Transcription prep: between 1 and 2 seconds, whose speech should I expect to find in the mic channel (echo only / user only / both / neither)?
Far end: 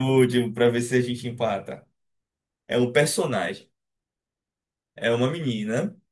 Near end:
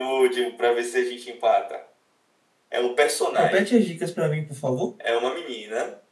echo only